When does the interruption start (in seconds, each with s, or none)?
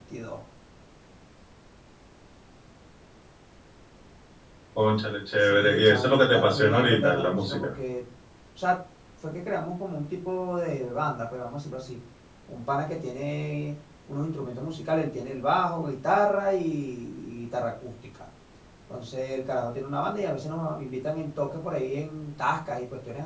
5.4 s